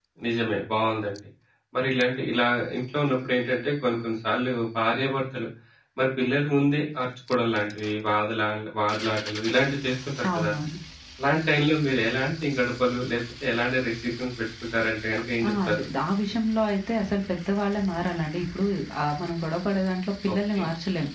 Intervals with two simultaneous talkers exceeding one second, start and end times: none

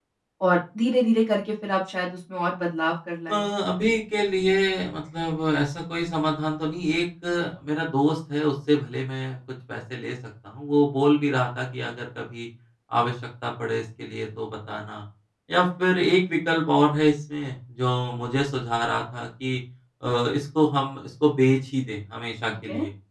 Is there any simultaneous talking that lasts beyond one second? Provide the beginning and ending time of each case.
none

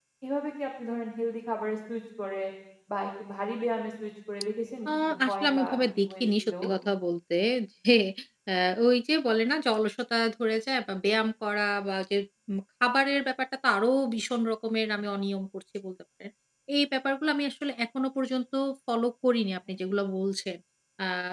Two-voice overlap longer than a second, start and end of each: 4.9-6.5

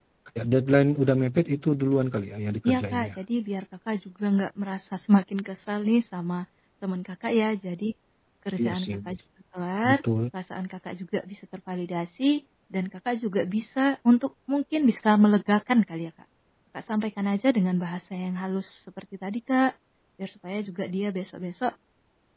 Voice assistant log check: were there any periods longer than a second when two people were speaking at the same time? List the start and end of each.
none

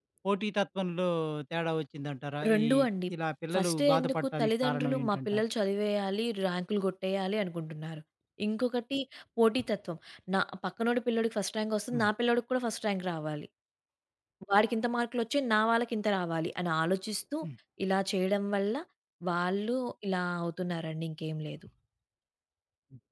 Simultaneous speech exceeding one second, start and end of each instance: 3.5-5.4

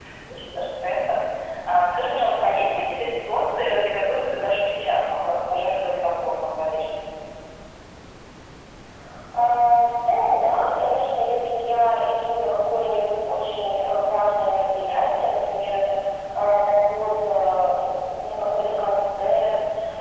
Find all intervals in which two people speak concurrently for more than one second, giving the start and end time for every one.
none

